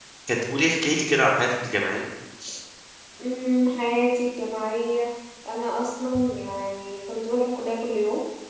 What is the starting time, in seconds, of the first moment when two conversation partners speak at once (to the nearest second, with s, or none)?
none